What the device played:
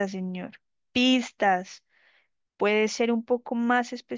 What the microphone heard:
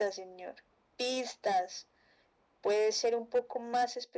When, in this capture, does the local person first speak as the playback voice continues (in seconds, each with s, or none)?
none